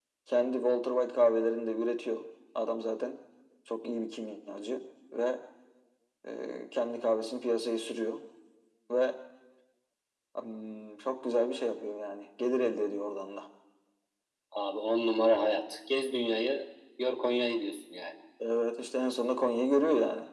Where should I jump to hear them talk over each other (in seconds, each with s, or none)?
none